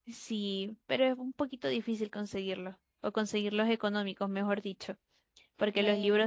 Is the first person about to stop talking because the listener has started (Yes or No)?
No